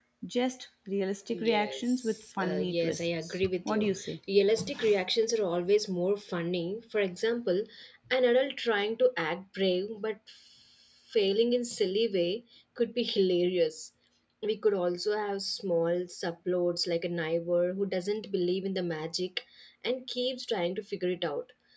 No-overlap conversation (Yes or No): No